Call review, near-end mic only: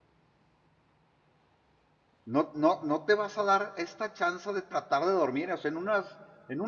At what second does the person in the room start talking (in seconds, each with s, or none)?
2.2 s